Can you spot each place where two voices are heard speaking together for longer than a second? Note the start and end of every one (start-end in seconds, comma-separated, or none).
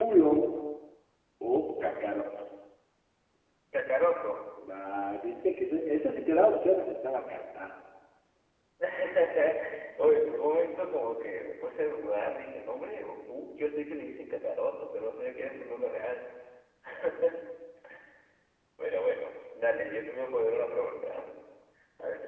none